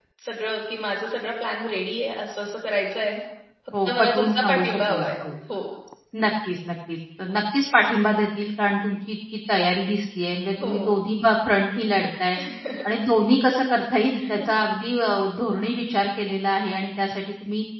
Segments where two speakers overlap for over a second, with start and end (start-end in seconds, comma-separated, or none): 3.9-5.3